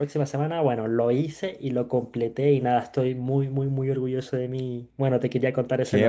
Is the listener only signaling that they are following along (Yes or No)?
No